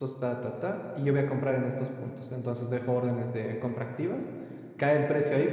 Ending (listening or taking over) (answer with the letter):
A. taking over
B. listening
B